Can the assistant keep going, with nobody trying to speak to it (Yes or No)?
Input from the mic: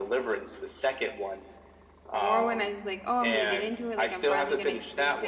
No